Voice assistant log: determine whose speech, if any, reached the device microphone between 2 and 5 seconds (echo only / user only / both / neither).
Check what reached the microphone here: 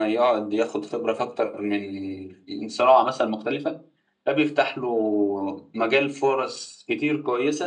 echo only